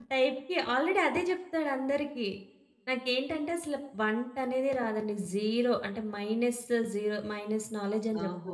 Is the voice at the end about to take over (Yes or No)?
Yes